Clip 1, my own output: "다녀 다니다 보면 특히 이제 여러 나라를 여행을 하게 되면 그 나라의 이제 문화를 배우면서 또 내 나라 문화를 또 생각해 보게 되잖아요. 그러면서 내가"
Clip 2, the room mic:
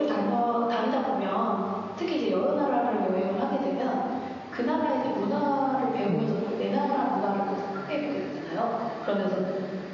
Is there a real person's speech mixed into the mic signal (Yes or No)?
Yes